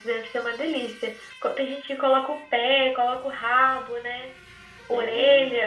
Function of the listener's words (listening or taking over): taking over